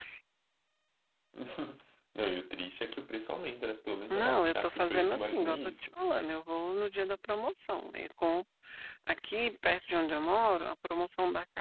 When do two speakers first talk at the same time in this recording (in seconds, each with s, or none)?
4.1 s